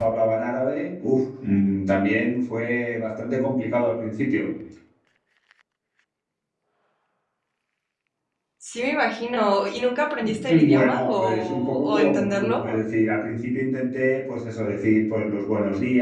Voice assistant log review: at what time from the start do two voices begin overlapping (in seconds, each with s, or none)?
10.2 s